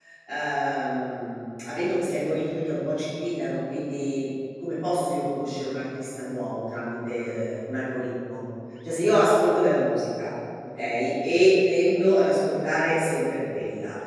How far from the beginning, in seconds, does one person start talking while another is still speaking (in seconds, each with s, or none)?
none